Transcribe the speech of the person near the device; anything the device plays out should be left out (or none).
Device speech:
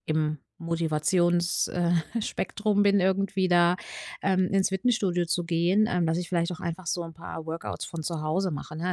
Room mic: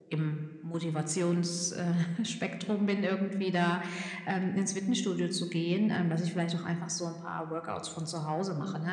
none